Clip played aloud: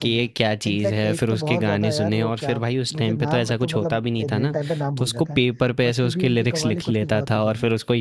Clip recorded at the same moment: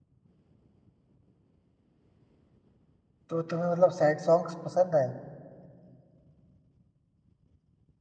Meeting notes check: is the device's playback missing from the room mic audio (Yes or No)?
Yes